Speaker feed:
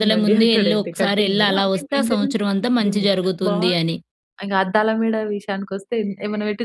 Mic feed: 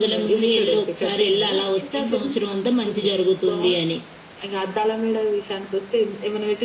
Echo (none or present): present